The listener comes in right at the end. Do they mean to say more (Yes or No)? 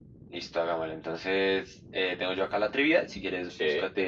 No